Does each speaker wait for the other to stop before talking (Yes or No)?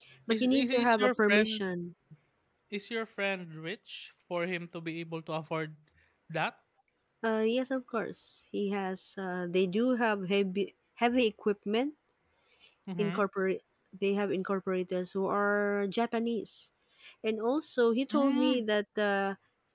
No